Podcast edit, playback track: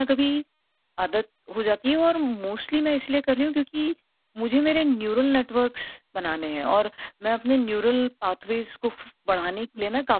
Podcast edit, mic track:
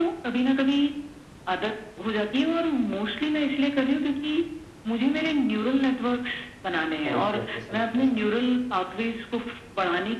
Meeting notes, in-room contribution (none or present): present